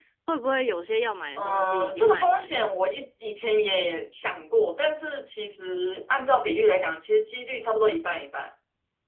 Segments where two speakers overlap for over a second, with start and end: 1.4-2.7

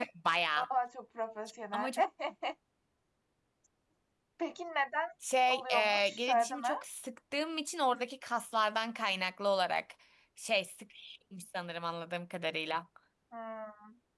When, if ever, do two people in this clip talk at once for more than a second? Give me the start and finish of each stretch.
5.5-6.7

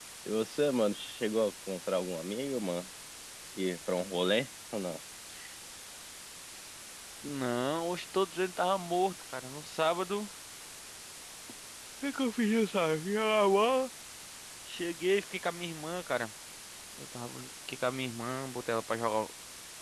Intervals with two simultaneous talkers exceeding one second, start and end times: none

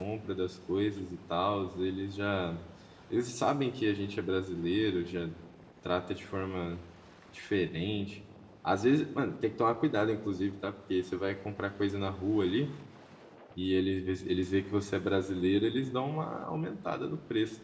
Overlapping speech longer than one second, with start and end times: none

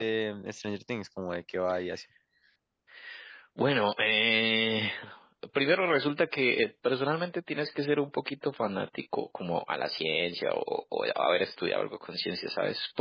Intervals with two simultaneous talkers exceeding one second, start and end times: none

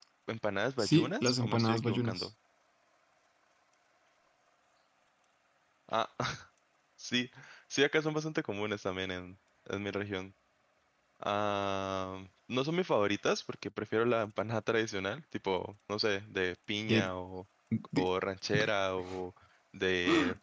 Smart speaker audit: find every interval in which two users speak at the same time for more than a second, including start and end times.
0.8-2.3

